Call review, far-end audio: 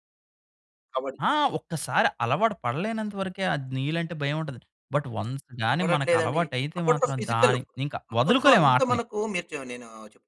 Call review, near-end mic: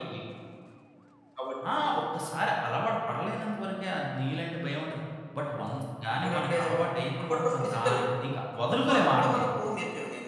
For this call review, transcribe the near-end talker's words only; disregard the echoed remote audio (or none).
none